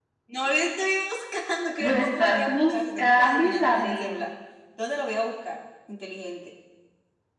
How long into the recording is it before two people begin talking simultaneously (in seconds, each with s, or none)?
1.8 s